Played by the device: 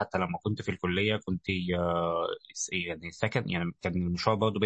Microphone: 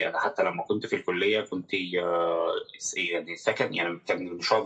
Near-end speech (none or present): none